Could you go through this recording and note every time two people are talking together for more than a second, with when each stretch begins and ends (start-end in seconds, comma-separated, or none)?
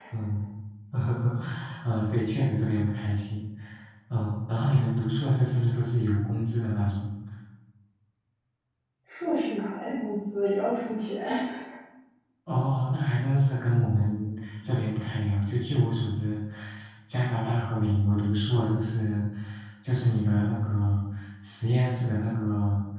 none